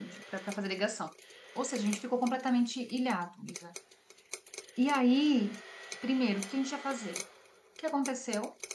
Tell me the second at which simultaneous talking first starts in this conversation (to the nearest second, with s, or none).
none